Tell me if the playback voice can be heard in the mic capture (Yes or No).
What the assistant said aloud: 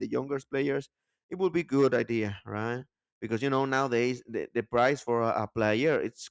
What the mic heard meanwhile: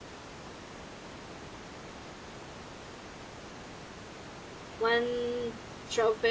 No